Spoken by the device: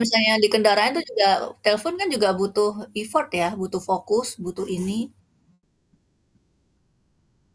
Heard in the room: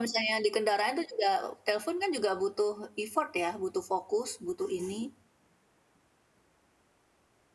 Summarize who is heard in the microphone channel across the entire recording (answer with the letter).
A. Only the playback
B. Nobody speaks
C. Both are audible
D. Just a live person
A